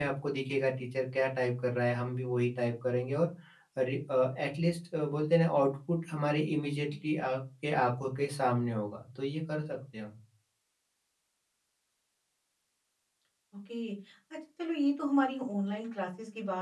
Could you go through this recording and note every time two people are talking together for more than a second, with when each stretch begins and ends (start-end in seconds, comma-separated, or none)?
none